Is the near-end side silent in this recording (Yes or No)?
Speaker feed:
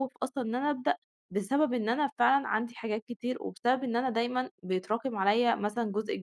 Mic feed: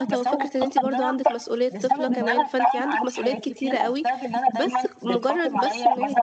No